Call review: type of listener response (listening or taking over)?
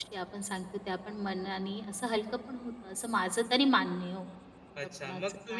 taking over